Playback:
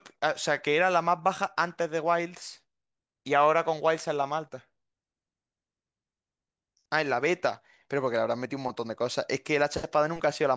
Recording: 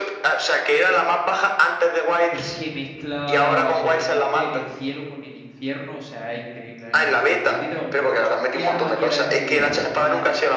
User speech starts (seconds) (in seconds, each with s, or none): 2.3 s